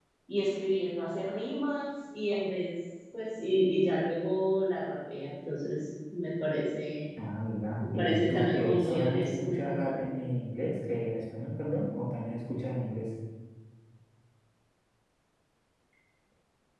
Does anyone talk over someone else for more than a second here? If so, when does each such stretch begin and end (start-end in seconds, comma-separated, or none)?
7.8-10.1